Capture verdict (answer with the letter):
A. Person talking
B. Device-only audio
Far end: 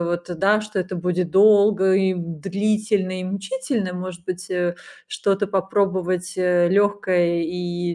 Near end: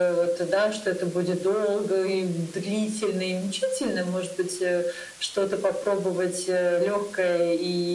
B